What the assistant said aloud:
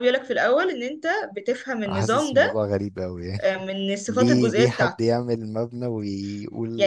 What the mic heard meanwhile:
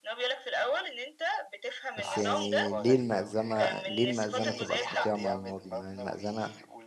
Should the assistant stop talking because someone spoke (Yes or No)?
Yes